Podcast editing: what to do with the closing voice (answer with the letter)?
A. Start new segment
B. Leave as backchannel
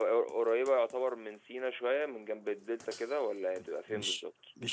A